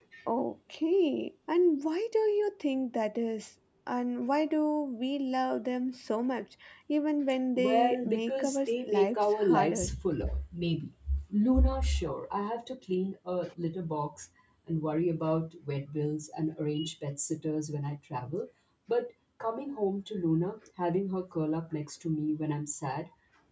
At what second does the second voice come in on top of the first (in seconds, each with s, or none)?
7.6 s